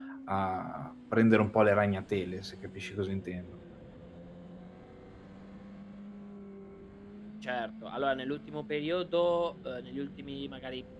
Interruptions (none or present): none